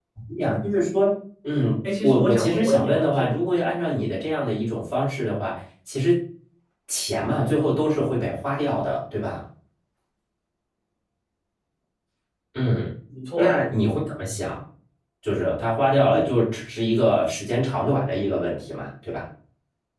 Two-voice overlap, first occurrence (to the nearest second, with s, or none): 2 s